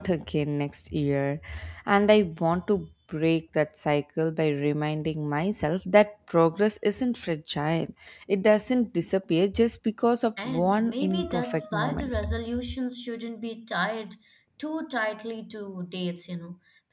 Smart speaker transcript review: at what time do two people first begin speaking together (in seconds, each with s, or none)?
10.4 s